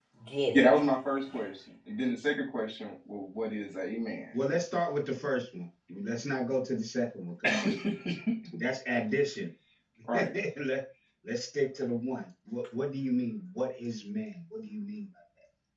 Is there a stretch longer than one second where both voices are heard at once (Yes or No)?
No